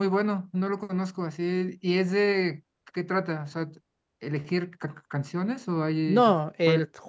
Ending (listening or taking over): taking over